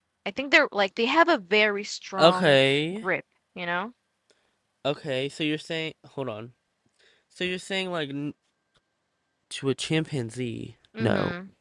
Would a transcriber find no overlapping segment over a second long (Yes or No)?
Yes